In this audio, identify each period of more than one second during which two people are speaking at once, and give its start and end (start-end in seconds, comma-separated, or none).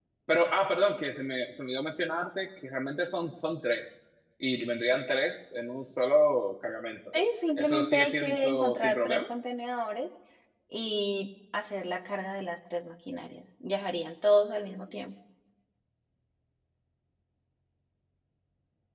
7.6-9.2